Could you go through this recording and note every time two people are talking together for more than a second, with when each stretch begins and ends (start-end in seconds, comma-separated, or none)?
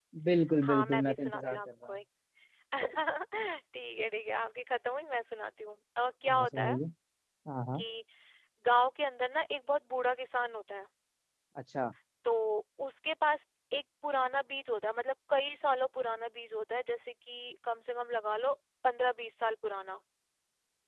0.6-1.9